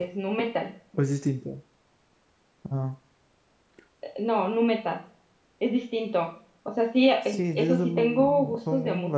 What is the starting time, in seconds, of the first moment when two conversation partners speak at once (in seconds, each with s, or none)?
7.2 s